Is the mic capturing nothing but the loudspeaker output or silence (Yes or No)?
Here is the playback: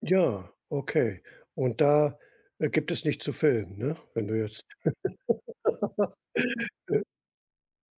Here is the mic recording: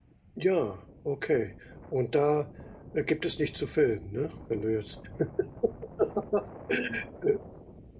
Yes